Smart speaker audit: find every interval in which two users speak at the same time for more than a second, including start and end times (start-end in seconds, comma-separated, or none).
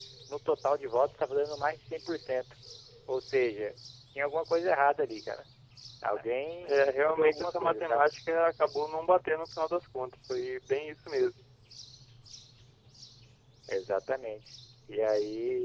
6.6-8.1